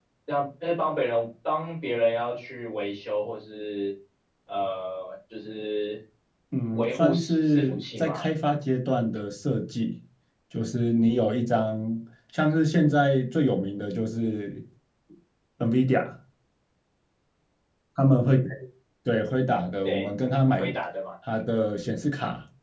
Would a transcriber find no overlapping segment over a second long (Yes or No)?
No